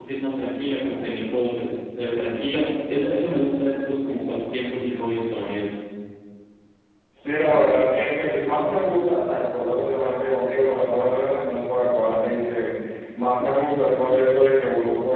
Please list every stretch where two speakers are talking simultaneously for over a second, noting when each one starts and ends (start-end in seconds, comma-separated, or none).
none